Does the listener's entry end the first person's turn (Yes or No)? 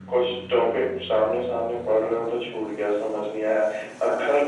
No